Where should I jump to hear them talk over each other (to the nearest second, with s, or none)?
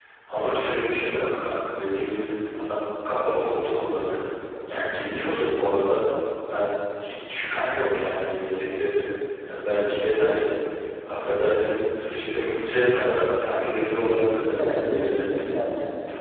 14 s